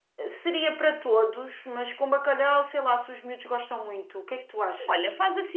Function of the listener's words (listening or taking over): taking over